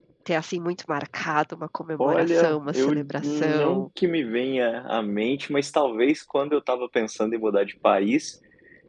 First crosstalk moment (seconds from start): 2 s

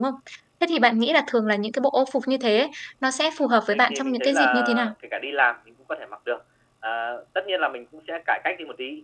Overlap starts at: 4 s

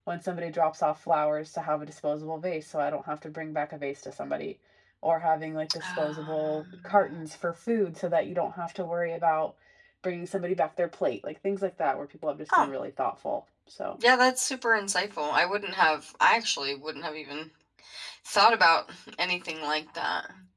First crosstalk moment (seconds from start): 6 s

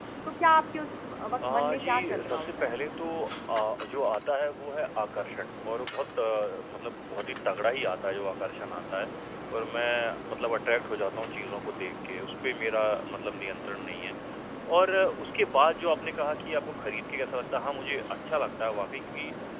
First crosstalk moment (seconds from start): 1 s

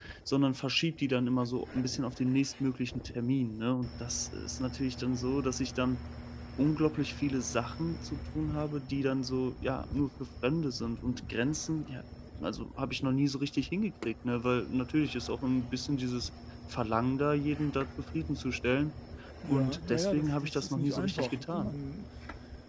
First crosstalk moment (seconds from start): 20 s

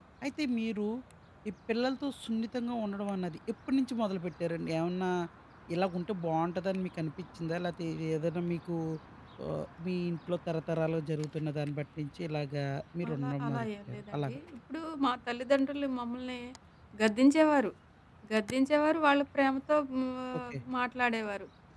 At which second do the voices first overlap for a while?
13 s

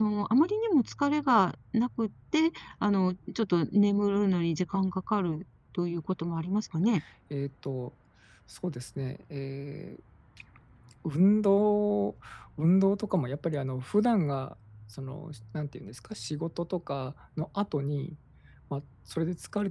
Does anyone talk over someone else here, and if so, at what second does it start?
none

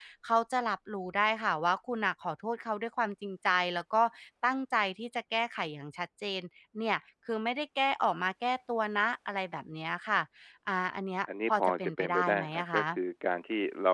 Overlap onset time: 11 s

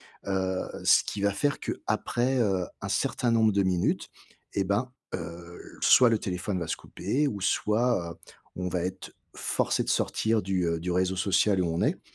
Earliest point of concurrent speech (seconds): none

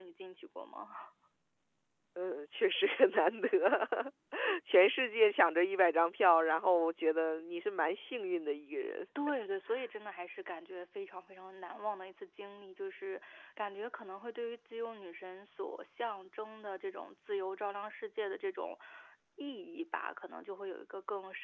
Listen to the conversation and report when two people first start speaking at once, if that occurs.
none

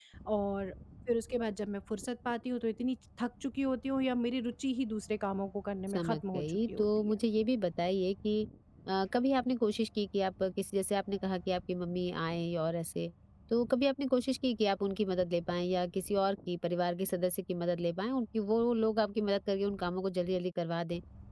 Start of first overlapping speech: 6 s

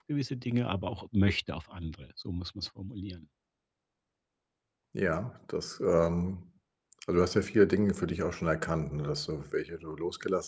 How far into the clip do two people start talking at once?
none

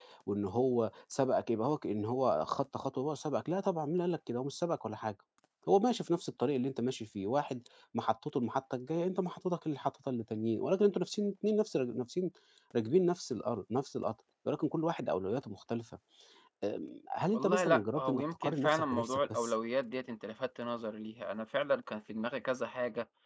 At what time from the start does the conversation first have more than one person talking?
17 s

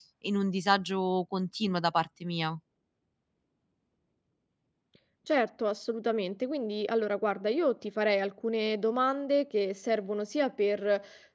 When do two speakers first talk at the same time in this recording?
none

